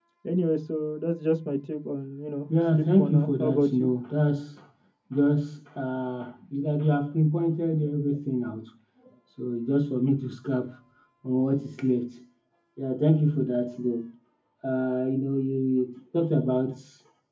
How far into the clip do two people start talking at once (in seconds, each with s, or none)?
2.5 s